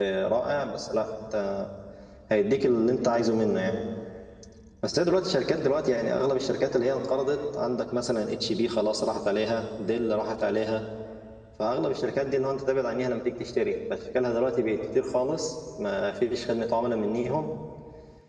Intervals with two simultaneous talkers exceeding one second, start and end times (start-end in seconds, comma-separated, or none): none